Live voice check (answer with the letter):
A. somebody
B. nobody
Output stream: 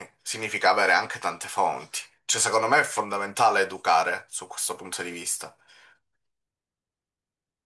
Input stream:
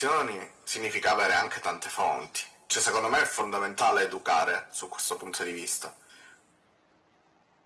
B